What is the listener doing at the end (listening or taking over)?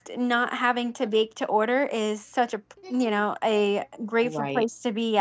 listening